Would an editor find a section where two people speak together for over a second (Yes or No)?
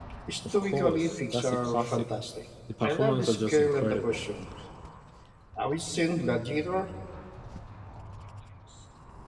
Yes